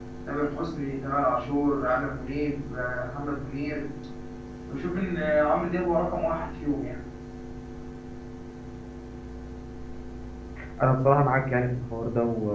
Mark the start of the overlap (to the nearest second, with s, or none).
none